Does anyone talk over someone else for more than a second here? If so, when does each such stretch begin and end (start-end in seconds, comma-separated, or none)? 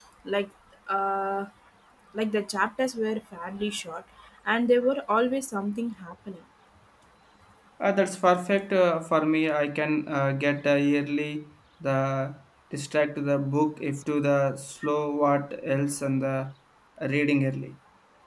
none